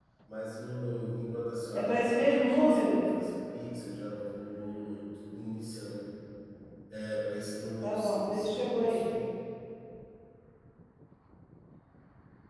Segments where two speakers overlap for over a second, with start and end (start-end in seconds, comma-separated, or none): 1.7-3.0, 7.8-9.0